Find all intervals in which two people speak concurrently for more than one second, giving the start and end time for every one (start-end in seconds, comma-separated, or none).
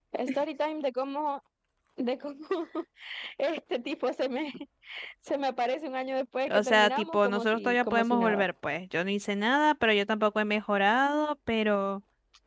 6.5-8.5